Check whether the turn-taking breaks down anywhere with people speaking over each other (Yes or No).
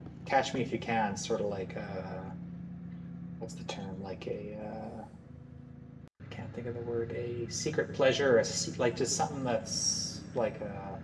No